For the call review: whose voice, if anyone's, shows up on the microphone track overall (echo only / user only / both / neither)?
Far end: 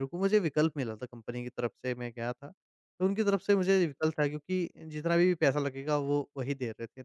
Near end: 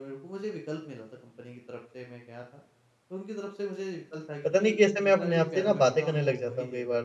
both